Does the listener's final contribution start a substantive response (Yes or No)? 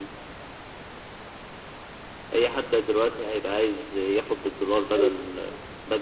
No